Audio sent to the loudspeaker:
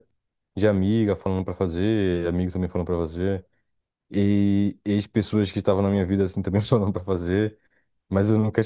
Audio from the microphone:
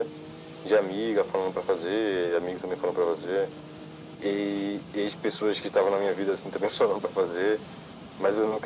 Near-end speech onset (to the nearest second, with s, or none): none